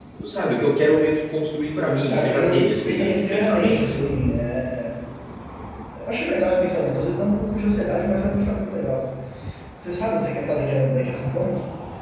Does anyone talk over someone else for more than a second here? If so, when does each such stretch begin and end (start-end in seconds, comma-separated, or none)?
2.1-4.2